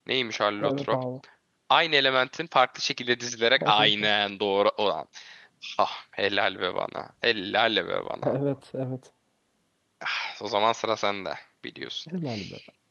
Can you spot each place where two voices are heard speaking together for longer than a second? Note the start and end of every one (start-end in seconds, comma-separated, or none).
none